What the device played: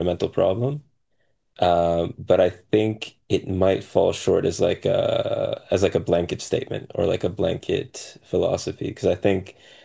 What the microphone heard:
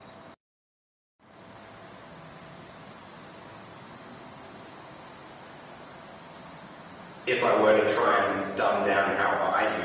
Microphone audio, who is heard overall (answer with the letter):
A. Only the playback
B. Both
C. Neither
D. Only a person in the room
D